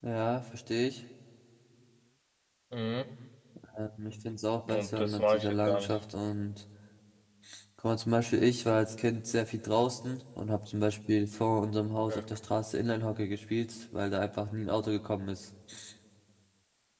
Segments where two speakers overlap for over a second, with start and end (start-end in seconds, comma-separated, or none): 4.7-6.0